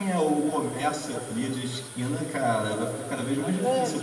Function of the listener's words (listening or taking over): taking over